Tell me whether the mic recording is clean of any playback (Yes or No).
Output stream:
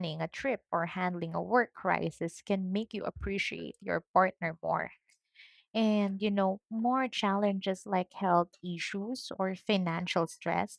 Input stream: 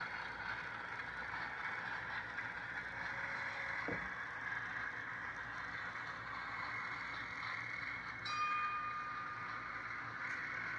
Yes